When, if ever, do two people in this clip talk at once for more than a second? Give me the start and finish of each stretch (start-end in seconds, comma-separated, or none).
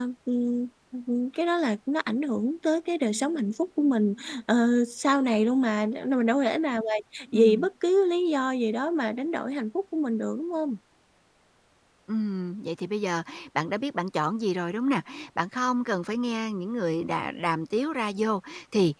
none